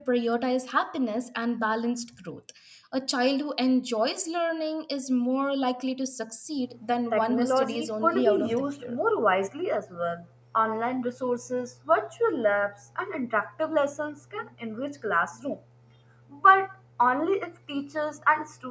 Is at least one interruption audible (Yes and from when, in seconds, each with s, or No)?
Yes, from 7.1 s